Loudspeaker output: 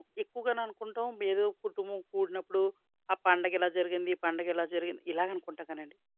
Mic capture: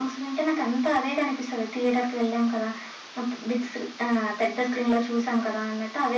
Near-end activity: present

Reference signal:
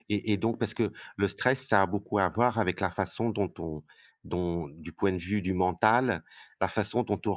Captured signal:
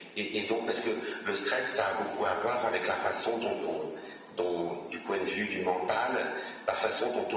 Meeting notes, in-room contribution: none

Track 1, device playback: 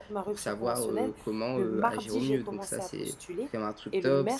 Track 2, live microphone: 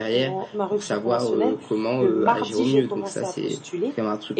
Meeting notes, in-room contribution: none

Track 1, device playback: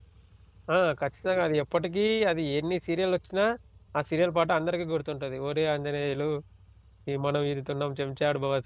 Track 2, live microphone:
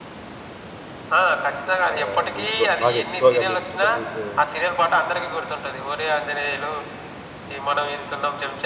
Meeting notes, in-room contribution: present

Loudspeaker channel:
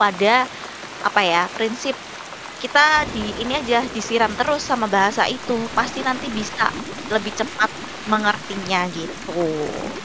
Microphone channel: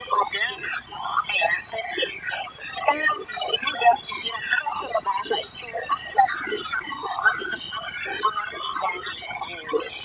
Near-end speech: none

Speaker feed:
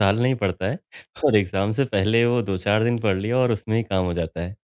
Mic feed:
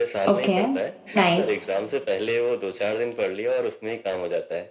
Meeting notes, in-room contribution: present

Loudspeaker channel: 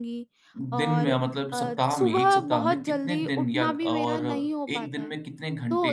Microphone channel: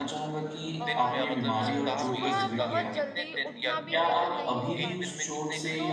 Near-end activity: present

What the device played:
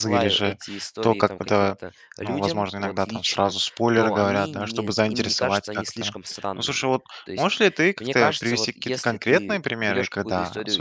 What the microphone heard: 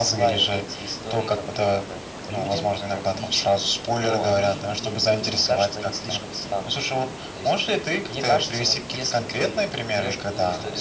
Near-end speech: none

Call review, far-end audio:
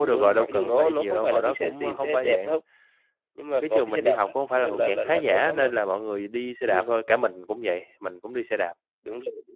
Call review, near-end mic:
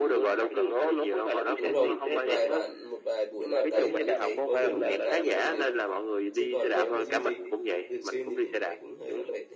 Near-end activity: present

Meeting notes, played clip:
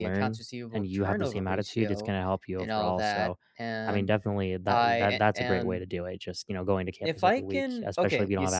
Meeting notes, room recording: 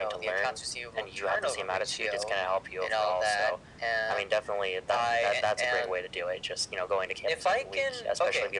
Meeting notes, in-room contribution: none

